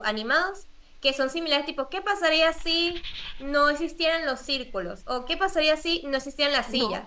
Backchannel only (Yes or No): Yes